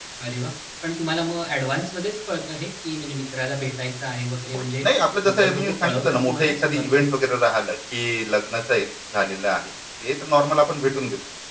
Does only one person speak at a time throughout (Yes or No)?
No